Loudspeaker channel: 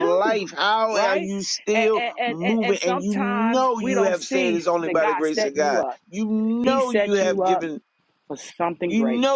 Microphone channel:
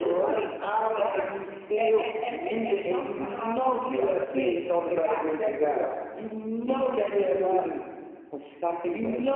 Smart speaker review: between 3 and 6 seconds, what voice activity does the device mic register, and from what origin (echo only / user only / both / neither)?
echo only